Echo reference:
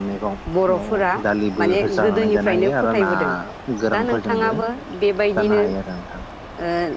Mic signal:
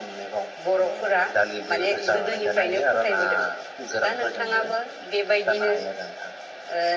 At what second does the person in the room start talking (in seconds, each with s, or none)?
none